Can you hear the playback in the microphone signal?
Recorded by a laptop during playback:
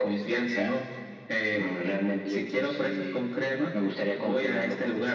Yes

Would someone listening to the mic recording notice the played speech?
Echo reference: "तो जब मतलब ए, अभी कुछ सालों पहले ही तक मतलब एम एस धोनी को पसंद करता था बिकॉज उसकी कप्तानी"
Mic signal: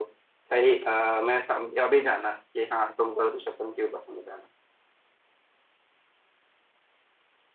No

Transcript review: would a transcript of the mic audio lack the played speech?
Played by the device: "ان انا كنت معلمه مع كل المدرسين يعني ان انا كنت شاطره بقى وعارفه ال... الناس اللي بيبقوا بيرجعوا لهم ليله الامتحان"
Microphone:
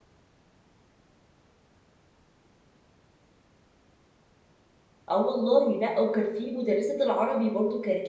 Yes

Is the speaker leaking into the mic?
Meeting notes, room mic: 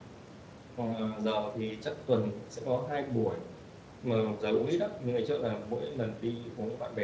No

